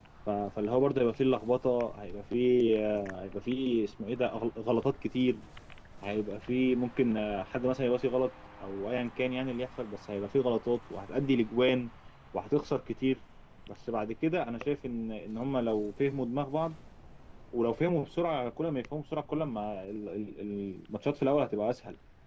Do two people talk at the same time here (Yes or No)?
No